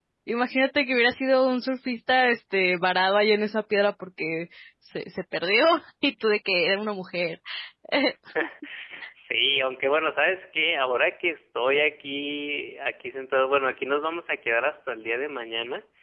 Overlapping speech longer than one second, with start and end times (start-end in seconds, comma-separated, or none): none